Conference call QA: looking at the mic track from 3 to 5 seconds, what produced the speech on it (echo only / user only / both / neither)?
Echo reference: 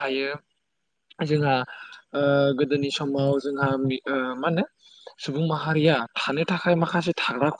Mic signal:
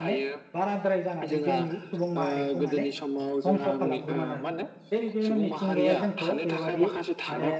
both